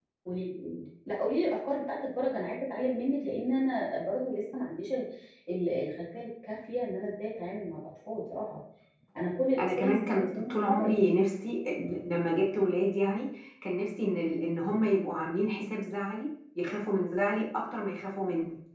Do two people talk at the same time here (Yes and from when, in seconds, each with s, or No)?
Yes, from 9.6 s